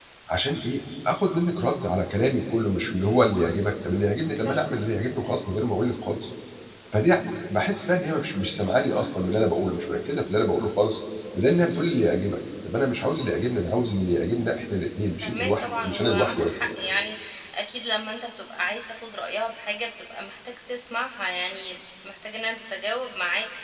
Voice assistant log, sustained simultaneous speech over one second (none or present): present